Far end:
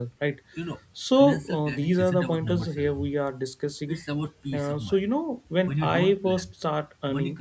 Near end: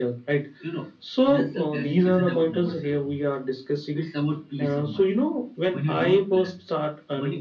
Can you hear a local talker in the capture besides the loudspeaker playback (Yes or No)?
No